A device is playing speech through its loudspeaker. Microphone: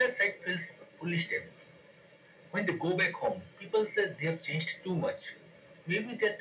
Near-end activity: none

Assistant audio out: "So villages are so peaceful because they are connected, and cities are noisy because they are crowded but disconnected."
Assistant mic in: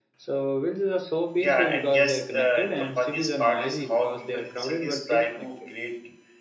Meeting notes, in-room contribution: present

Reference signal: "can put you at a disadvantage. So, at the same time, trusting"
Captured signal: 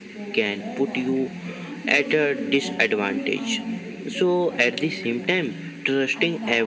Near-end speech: present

